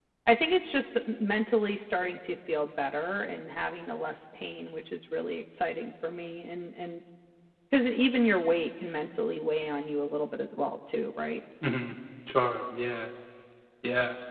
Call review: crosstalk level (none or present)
none